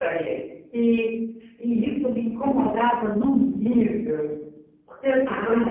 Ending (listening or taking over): listening